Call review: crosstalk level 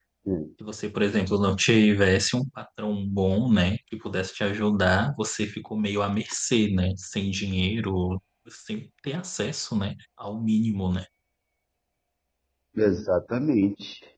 none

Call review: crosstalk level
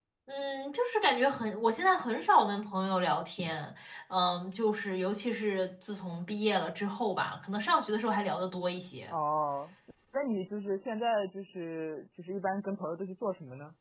none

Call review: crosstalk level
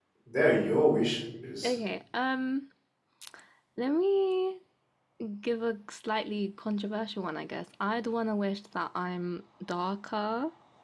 none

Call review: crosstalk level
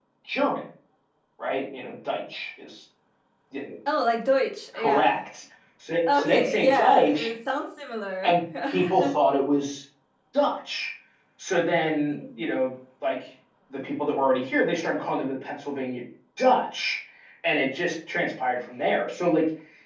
present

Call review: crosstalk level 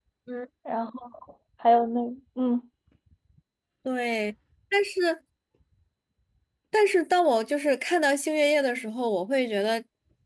none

